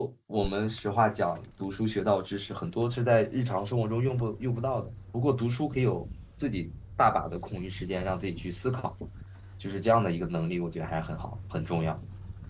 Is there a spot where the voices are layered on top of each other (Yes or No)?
No